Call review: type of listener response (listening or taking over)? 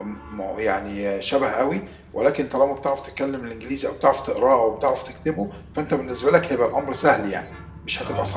taking over